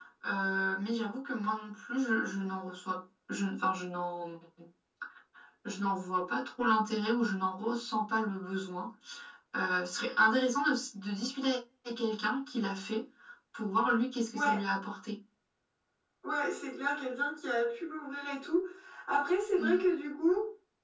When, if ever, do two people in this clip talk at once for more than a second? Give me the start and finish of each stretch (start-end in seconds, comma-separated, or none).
none